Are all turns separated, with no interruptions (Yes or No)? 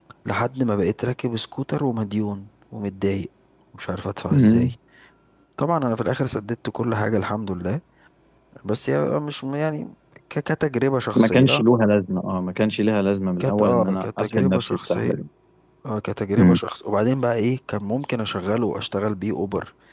No